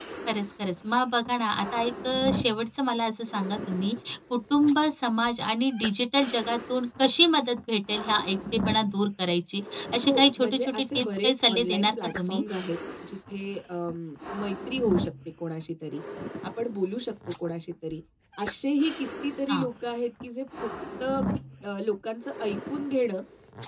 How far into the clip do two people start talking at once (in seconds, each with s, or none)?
10.0 s